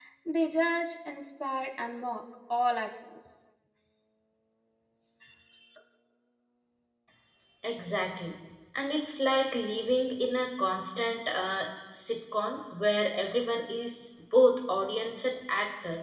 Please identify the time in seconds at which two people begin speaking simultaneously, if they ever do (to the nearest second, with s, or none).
none